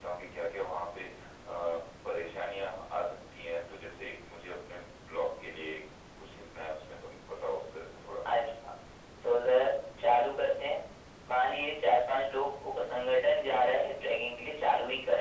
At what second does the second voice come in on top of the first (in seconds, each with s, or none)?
none